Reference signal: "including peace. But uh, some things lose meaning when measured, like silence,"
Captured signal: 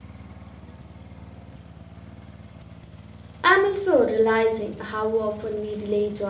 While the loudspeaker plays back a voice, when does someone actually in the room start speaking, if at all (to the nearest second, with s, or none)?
3 s